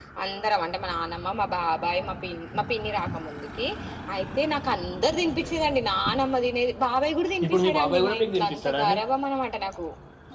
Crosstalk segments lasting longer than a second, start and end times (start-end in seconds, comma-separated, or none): 7.4-8.8